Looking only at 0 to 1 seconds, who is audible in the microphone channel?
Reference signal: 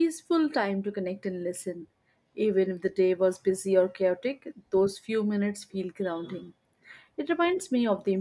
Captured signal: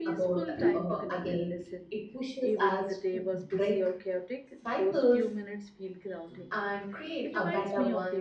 both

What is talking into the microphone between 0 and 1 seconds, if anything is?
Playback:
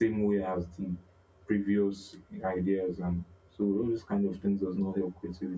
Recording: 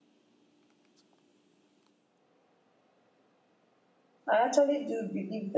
neither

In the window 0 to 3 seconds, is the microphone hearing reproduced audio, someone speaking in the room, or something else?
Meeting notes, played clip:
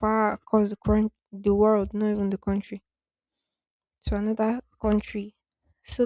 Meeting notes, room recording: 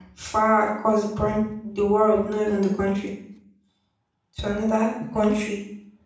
echo only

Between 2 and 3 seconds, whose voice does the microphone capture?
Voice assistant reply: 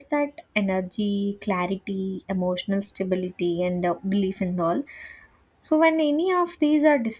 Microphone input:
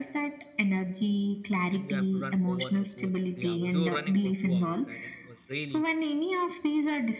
both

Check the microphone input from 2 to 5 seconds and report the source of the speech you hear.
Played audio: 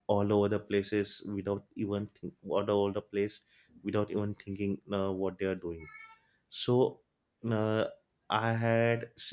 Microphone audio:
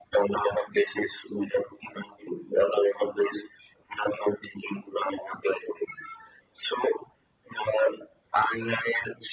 echo only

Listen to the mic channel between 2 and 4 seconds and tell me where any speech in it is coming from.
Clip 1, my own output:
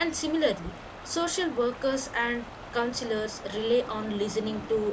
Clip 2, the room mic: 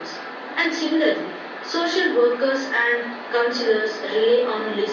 echo only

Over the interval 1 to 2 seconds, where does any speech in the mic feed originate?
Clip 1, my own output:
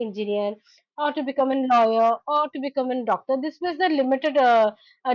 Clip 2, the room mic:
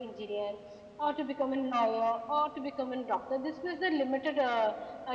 echo only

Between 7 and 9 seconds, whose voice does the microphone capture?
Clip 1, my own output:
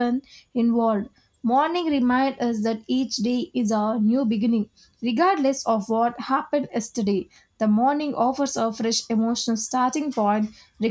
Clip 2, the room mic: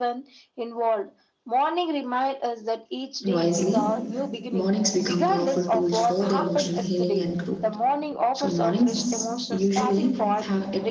both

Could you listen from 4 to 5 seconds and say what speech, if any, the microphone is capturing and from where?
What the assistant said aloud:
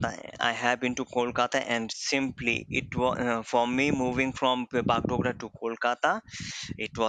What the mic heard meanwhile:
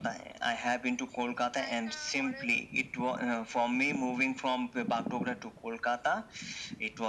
echo only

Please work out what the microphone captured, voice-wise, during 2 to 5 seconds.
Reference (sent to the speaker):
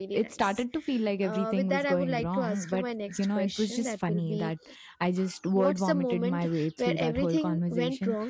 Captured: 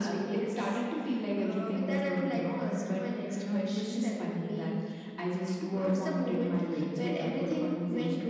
echo only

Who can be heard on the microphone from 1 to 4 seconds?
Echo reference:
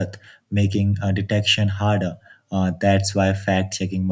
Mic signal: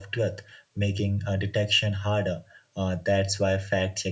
echo only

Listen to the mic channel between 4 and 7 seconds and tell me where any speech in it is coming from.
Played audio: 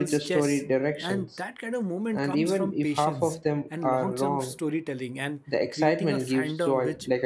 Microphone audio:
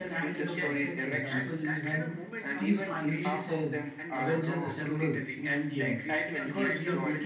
both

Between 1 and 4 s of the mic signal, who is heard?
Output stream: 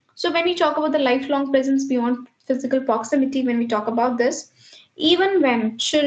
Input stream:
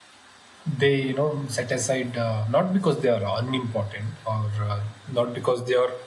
user only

